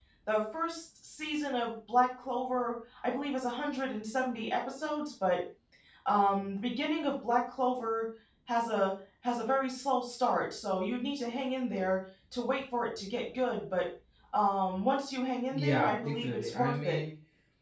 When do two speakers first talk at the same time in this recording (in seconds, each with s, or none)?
15.5 s